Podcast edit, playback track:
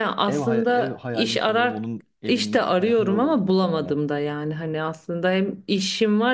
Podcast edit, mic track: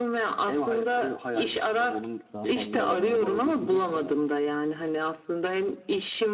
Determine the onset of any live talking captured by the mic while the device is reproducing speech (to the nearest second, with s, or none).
2 s